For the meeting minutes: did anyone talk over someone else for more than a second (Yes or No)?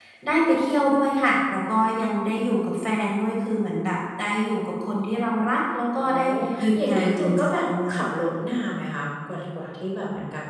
Yes